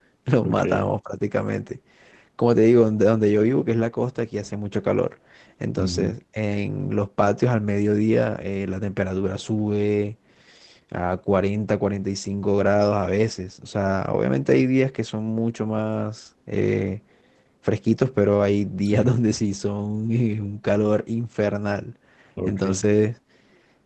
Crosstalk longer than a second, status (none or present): none